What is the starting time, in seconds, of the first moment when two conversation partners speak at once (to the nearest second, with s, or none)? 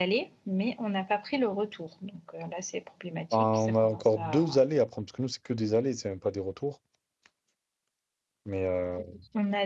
3 s